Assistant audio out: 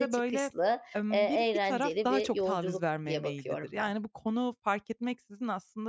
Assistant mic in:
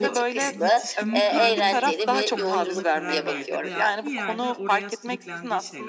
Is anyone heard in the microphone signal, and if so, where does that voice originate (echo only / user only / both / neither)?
both